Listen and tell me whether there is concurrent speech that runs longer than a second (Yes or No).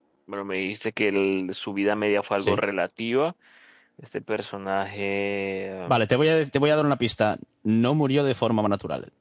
No